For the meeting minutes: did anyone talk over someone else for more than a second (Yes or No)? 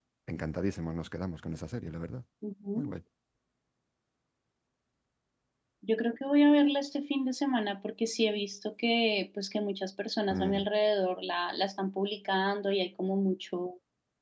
No